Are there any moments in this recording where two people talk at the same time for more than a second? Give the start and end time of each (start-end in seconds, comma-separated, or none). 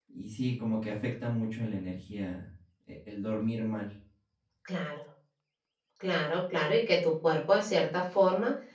none